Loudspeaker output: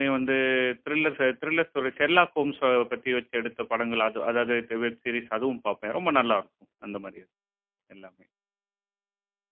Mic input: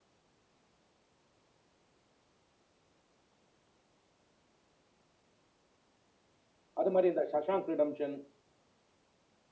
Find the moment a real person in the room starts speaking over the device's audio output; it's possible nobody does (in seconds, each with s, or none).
6.8 s